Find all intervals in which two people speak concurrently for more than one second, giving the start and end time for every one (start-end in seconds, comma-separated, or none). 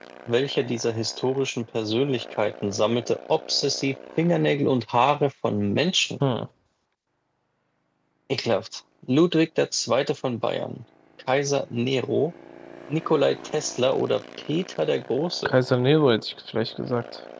none